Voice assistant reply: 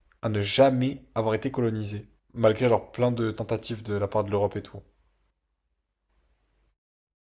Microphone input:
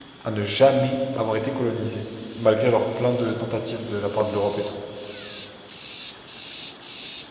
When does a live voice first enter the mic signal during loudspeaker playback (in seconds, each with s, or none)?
none